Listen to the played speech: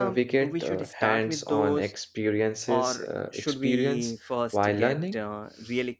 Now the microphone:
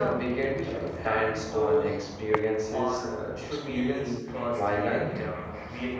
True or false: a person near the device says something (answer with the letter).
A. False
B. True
A